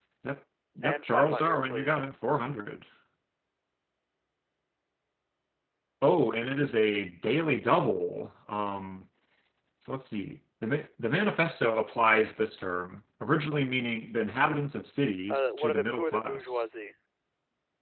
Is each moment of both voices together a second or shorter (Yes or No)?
No